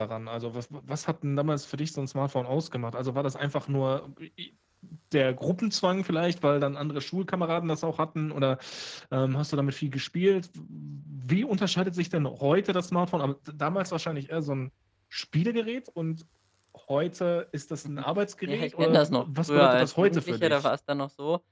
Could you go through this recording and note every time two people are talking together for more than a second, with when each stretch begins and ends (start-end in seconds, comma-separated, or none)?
18.5-20.7